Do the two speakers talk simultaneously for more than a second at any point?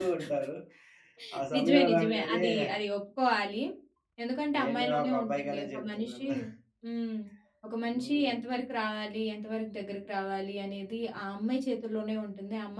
Yes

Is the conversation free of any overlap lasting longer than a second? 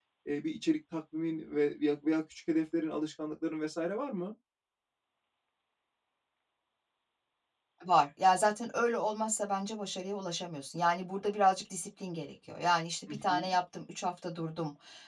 Yes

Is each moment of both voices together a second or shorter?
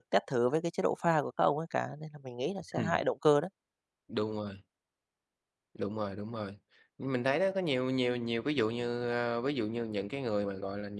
Yes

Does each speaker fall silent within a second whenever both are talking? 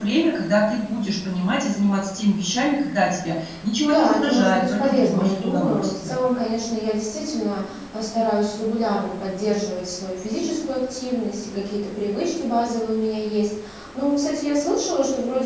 No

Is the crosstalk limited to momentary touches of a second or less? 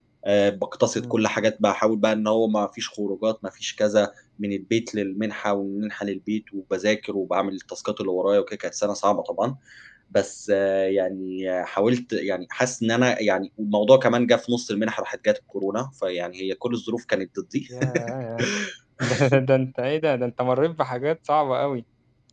Yes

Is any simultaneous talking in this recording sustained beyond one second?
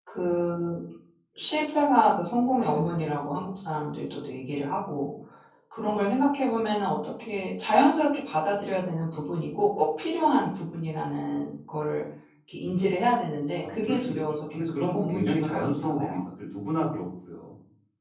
Yes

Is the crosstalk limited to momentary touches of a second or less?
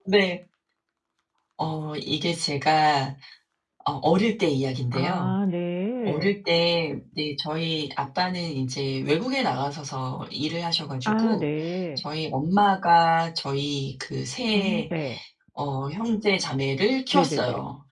Yes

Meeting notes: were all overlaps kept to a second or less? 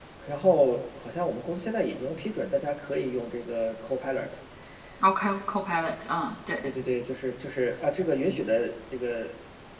Yes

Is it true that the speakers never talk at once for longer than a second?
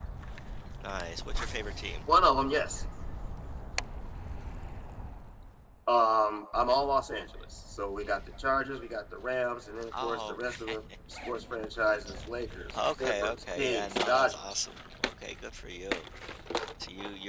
No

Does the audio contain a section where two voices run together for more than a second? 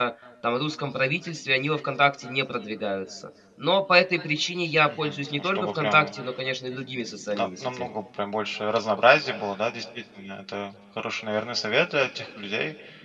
Yes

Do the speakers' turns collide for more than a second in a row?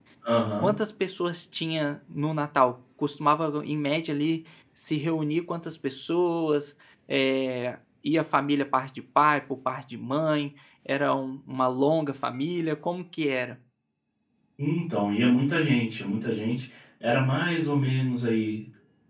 No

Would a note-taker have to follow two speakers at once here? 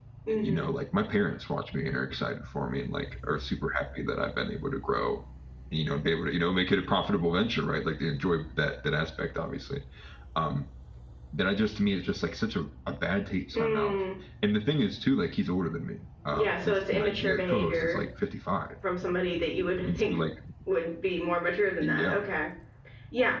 Yes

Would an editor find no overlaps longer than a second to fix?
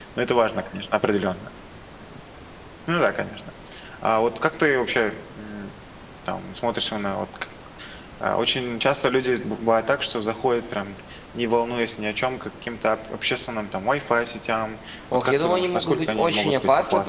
No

